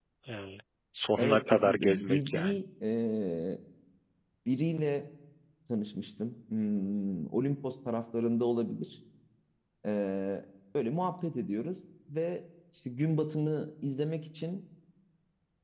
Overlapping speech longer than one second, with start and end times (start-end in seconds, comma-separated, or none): 1.2-2.6